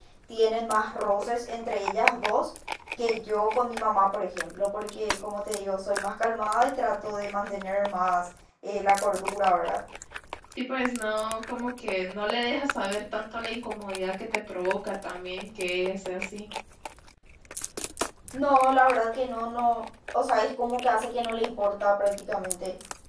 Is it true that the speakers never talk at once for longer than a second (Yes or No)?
Yes